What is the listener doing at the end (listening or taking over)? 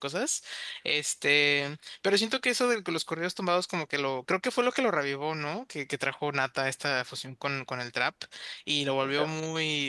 listening